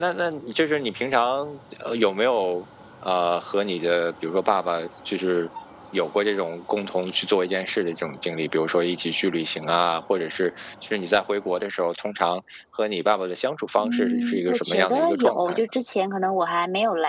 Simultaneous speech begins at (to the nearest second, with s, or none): 14 s